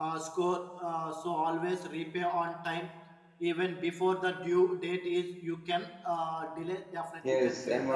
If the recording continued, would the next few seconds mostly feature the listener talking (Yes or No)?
Yes